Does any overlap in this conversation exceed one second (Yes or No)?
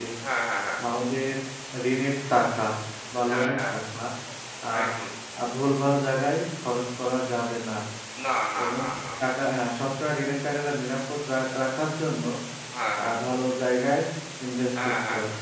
No